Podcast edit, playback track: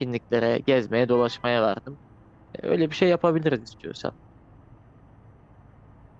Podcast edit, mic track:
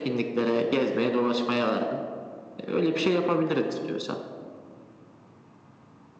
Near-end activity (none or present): none